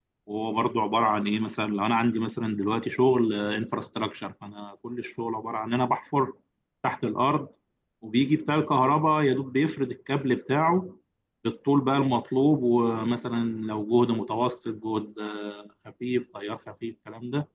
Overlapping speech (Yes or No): No